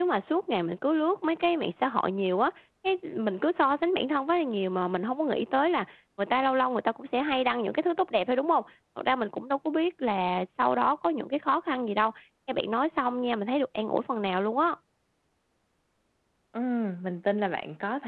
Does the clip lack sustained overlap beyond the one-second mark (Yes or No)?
Yes